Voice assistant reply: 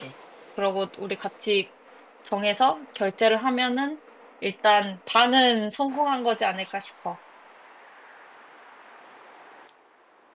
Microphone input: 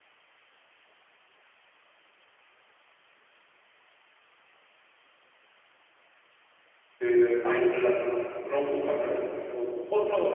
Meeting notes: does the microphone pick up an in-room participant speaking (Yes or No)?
Yes